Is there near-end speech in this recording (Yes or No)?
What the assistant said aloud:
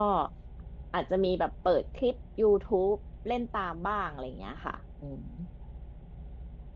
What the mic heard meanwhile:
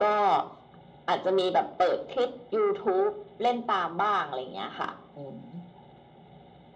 No